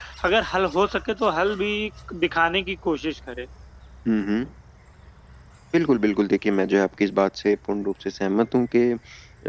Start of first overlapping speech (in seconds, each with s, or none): none